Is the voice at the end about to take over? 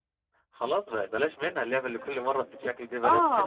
Yes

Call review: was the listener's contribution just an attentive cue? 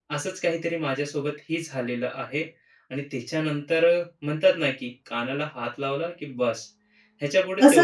No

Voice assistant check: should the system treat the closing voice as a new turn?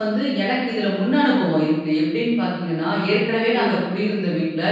No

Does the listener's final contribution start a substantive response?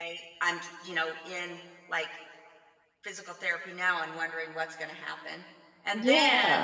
No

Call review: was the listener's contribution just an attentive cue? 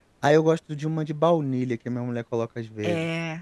No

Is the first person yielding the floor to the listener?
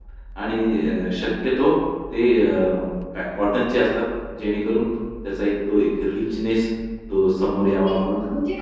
Yes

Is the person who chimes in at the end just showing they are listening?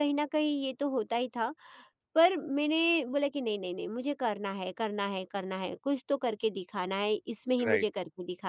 Yes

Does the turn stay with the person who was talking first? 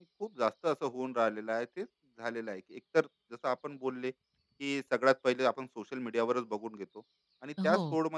Yes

